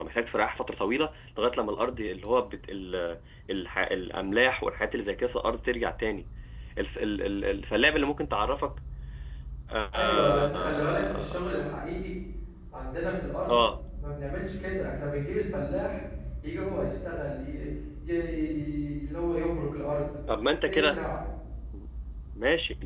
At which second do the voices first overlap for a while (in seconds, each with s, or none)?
9.9 s